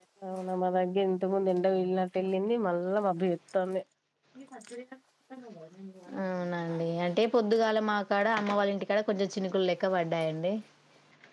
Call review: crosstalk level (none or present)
none